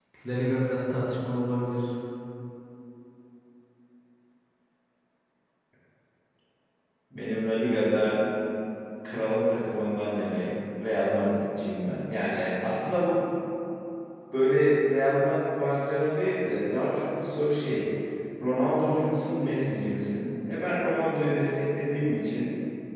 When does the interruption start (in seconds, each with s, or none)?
none